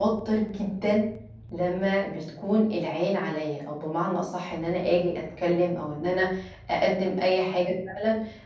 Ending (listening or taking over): listening